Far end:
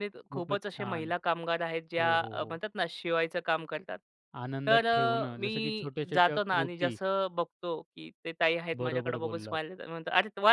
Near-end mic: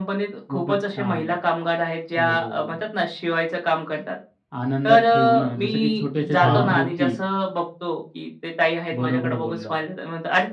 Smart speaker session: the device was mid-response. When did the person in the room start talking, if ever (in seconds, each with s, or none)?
6.4 s